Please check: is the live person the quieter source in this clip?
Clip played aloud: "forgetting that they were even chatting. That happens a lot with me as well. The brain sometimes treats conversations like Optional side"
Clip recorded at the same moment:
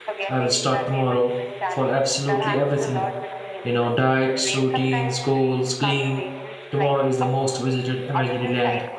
No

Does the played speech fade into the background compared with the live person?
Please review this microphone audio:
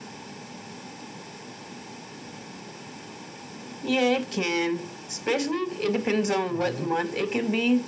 No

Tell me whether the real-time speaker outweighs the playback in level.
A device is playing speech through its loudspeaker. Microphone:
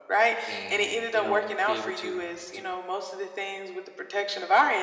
No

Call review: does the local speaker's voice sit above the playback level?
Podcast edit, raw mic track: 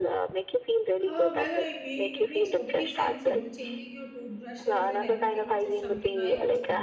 No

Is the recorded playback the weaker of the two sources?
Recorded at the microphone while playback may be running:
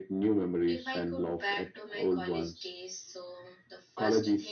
No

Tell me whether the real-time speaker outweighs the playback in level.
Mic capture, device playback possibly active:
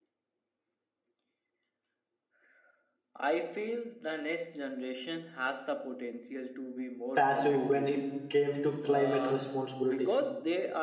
Yes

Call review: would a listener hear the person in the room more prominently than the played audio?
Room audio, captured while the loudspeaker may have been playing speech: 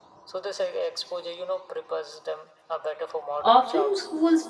Yes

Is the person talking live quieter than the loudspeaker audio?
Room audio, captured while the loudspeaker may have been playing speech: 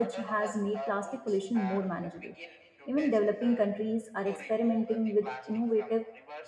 No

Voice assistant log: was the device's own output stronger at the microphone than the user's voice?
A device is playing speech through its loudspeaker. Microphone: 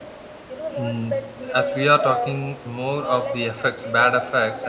No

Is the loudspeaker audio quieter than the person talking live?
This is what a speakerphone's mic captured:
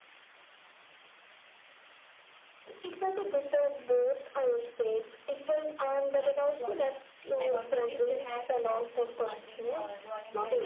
No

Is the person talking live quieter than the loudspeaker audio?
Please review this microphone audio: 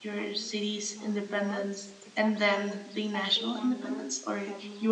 No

